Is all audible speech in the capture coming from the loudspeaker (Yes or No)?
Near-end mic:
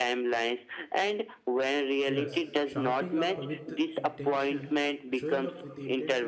No